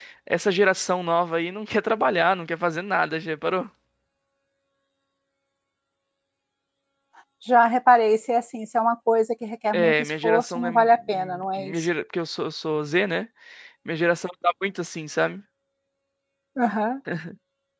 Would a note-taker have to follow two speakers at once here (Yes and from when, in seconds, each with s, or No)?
Yes, from 9.7 s